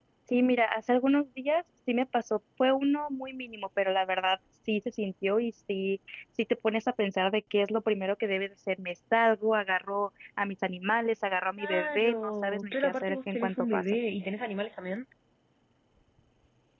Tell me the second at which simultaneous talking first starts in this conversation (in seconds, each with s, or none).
11.6 s